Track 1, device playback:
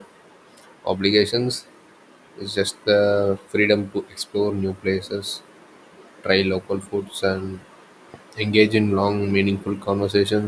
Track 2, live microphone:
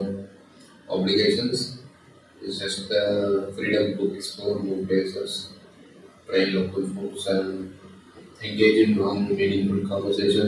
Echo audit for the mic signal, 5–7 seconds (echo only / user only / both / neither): echo only